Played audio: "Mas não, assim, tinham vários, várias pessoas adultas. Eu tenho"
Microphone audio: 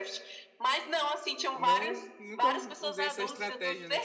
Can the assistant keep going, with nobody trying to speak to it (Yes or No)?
No